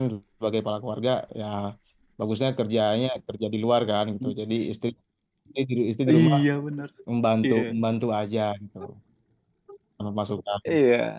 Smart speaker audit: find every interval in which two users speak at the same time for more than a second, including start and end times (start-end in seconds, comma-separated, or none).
none